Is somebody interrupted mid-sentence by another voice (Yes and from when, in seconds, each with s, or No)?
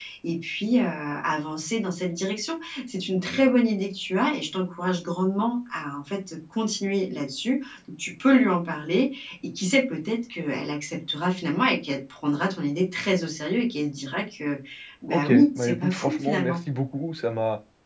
Yes, from 15.1 s